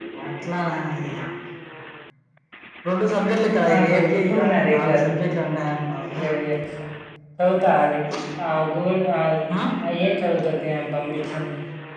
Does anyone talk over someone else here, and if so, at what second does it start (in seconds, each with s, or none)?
3.7 s